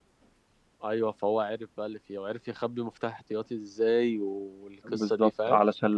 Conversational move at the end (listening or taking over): taking over